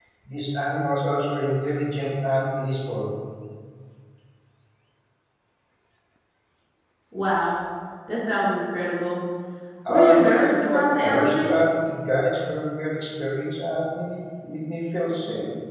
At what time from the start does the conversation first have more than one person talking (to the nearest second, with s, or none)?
10 s